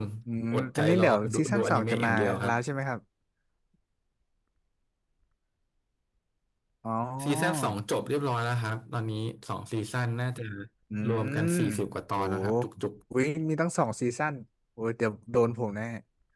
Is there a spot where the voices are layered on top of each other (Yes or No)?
Yes